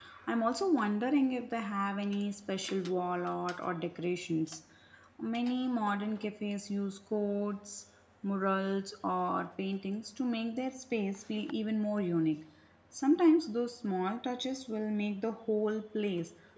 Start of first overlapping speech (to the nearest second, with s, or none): none